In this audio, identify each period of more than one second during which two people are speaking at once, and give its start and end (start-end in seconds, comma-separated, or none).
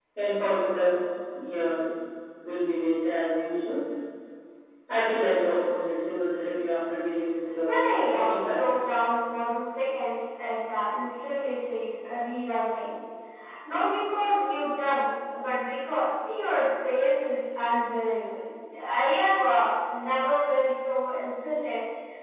7.6-9.0